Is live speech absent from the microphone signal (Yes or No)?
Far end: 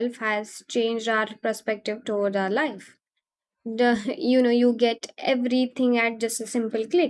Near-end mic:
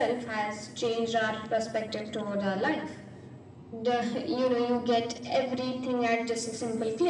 Yes